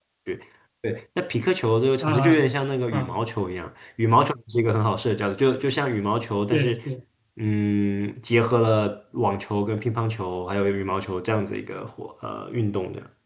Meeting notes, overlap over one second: none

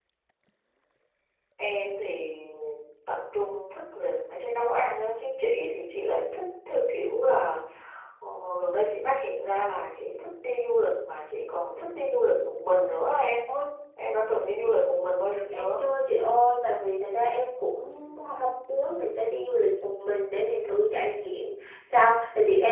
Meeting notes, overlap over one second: none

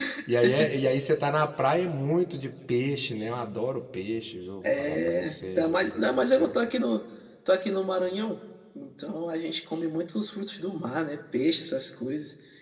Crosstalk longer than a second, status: present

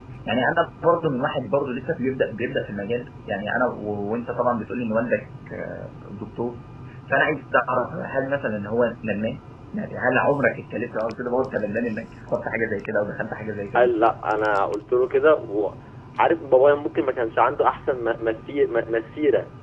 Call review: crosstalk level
none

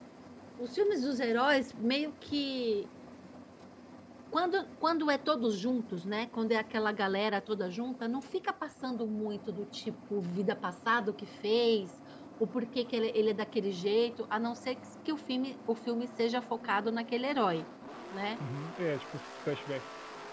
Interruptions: none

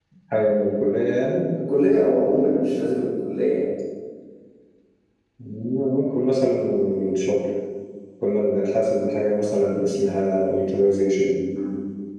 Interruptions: none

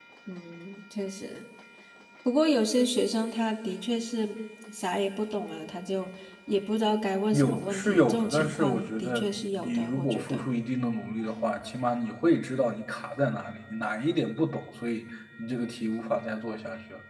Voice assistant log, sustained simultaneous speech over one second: present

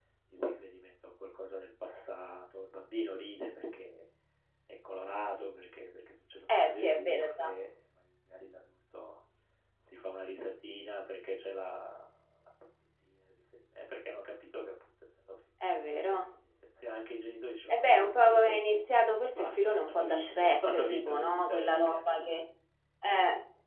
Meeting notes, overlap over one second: present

